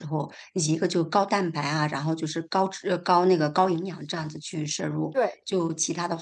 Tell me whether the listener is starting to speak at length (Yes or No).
No